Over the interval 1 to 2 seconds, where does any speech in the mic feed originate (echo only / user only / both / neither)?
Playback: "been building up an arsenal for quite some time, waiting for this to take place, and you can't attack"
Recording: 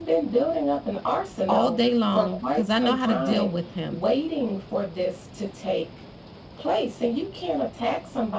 both